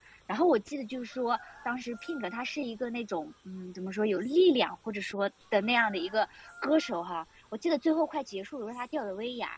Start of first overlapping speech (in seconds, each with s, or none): none